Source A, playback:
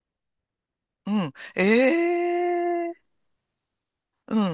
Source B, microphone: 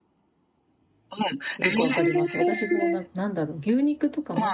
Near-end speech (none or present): present